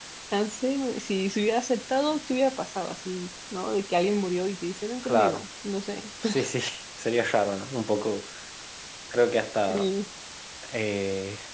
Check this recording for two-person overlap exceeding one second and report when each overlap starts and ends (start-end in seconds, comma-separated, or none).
none